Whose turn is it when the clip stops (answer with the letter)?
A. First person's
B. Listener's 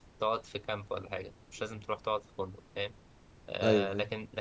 A